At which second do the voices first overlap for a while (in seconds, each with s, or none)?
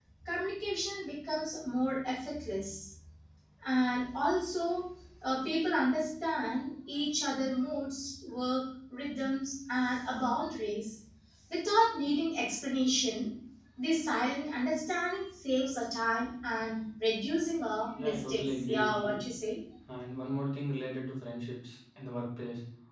17.9 s